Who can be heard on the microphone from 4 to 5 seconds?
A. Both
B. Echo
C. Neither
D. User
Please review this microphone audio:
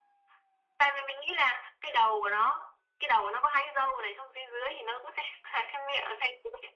B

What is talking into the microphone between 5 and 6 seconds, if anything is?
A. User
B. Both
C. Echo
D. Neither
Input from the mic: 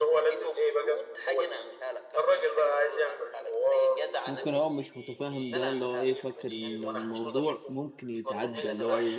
B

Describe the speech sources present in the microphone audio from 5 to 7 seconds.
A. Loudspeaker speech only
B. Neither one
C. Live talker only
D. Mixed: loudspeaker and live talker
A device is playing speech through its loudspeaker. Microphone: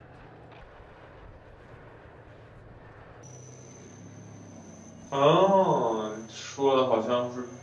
C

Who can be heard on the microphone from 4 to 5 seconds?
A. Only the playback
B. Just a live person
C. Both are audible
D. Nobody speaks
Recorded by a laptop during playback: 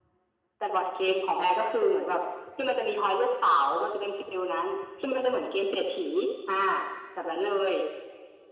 A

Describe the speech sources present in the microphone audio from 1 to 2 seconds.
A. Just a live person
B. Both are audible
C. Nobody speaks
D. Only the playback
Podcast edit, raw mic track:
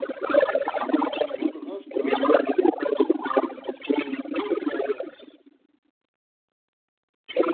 B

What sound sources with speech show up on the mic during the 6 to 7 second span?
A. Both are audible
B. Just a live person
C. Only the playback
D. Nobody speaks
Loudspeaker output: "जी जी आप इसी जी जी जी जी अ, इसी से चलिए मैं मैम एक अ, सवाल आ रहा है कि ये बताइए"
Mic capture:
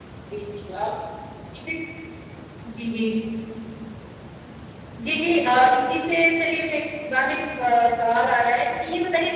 C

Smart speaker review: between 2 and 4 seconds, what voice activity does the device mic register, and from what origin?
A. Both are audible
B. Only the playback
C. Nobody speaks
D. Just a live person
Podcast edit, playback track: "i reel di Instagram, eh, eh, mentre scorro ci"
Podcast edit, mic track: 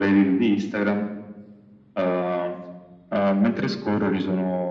B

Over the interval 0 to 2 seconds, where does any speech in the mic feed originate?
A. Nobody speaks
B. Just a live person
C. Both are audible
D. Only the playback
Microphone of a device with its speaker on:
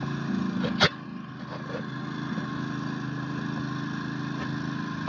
A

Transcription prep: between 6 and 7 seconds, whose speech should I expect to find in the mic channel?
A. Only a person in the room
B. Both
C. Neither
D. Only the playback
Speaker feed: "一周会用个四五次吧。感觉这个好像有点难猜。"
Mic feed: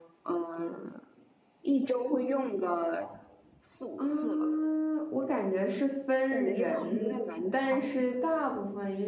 B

